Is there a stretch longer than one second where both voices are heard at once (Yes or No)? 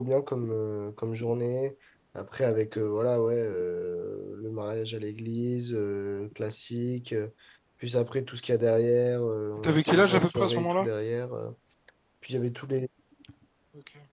Yes